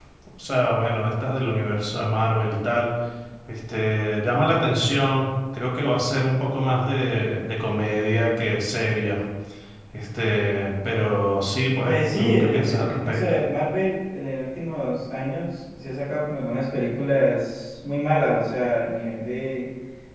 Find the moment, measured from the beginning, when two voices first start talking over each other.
12 s

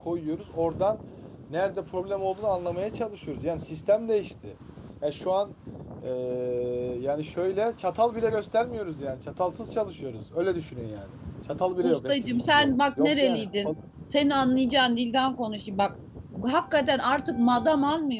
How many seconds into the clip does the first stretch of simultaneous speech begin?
12 s

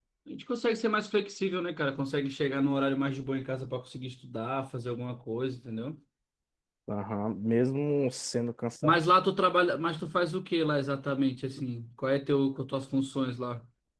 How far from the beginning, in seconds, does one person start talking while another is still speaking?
none

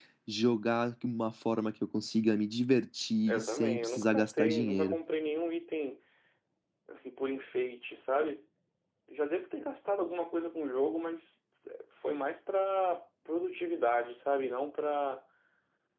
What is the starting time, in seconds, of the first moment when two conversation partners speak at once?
3 s

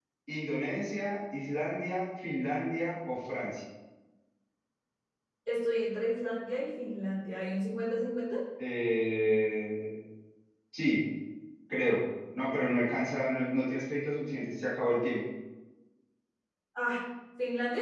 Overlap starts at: none

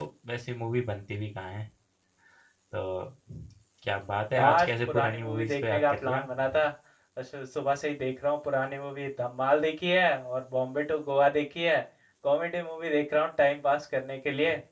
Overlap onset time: 4 s

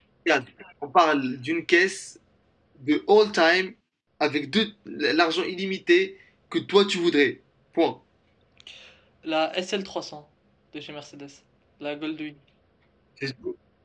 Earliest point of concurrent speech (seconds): none

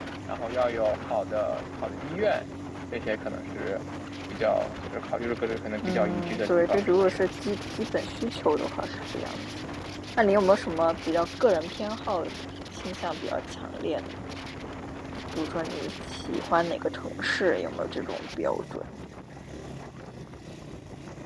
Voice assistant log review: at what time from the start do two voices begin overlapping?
6 s

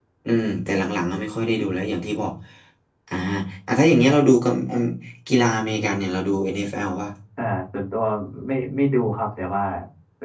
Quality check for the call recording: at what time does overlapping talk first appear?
none

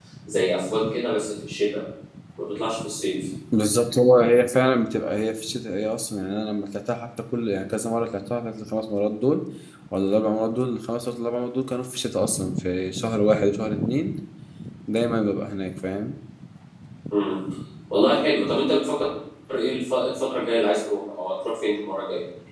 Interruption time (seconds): none

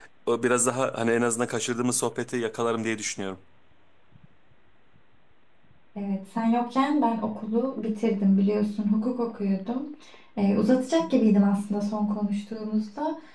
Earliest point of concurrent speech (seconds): none

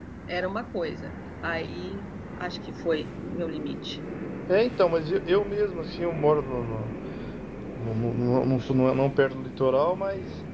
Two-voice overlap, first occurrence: none

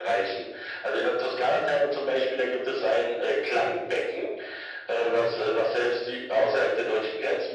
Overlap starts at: none

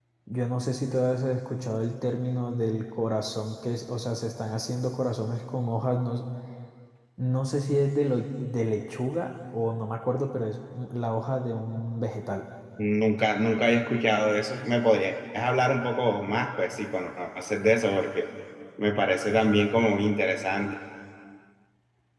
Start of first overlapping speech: none

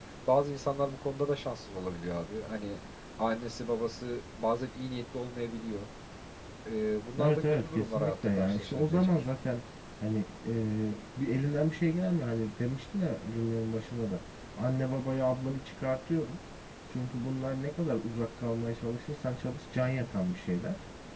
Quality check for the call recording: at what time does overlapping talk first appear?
7 s

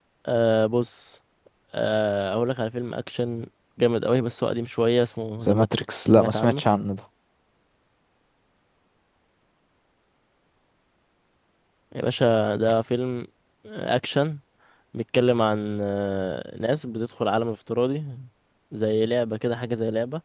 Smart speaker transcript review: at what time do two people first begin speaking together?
5 s

